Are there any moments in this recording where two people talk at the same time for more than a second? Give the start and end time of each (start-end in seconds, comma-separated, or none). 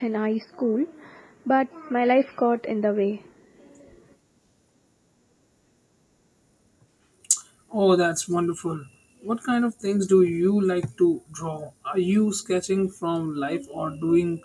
none